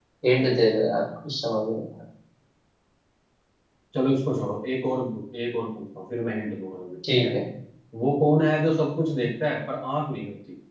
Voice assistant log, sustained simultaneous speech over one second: none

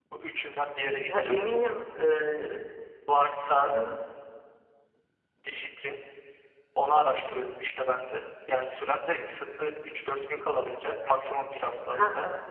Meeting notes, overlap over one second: none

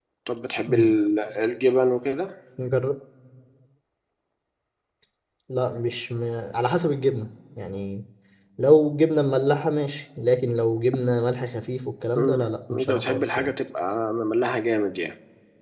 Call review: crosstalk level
present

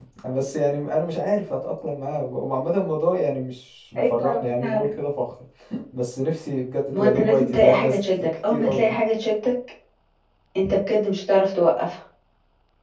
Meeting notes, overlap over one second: present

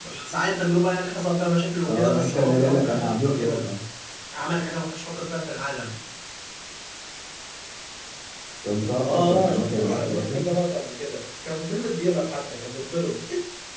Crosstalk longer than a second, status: present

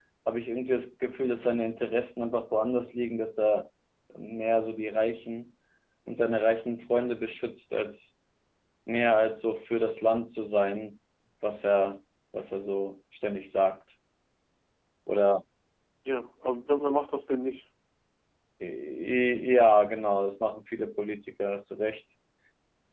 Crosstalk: none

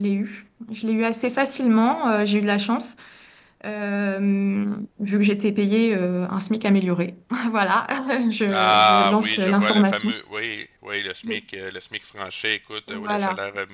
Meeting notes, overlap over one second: present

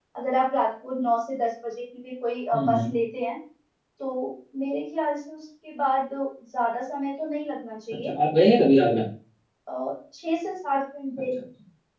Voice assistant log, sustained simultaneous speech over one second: none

